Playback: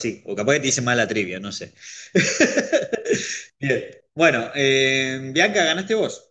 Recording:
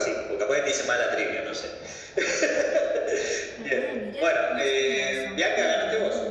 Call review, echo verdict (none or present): present